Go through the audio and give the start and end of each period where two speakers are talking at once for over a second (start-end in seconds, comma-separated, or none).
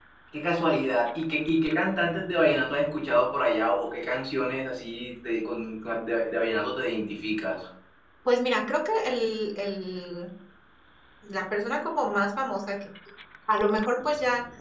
none